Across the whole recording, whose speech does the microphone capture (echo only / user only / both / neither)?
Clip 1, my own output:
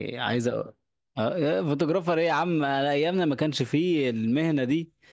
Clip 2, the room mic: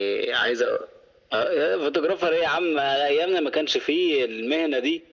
echo only